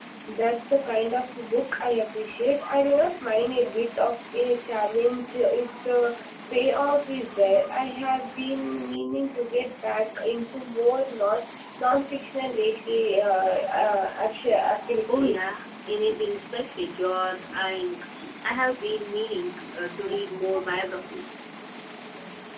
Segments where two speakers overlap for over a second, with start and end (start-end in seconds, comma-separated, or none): none